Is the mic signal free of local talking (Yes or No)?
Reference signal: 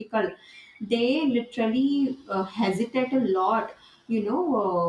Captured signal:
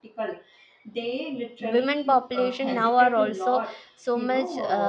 No